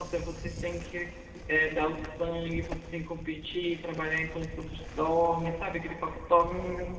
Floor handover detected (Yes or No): Yes